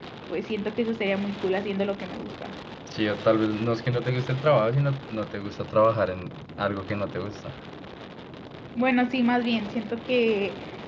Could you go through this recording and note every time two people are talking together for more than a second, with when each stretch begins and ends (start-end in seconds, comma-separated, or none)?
none